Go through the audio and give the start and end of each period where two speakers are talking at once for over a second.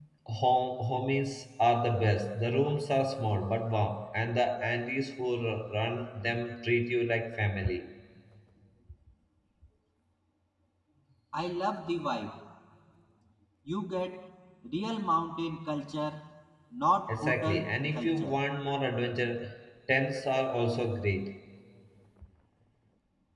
17.1-18.4

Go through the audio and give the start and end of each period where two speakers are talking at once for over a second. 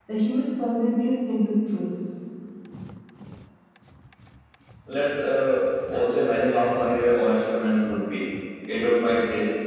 none

